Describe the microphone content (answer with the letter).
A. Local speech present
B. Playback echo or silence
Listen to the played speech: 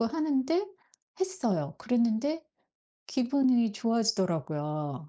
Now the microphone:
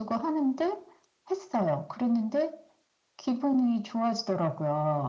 B